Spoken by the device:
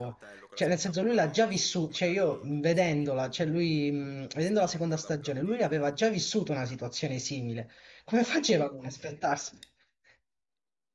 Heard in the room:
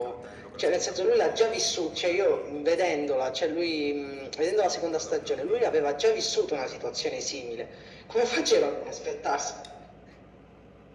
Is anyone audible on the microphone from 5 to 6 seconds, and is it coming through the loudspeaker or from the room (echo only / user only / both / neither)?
echo only